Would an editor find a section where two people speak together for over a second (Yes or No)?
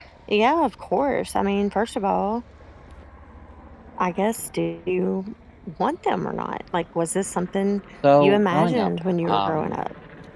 Yes